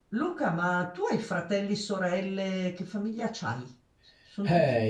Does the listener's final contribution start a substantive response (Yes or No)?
Yes